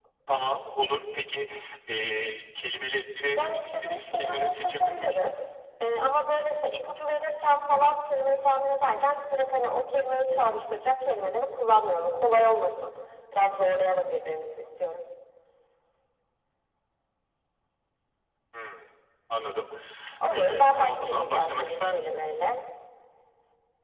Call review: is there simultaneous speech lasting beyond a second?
Yes, from 3.4 s

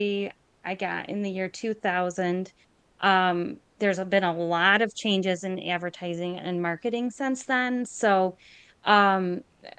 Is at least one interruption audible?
No

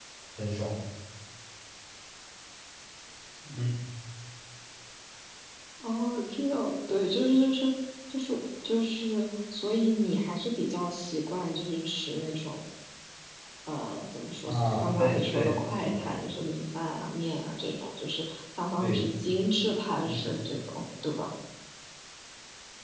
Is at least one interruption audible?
Yes, from 14.5 s

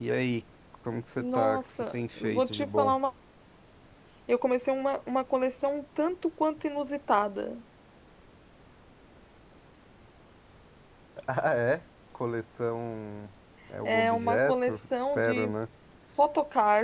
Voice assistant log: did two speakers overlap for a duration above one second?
Yes, from 1.2 s

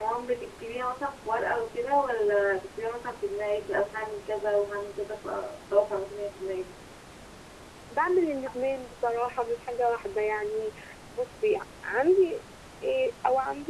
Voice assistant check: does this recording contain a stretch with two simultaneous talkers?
No

